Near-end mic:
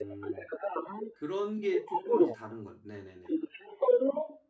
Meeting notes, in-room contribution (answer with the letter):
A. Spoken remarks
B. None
A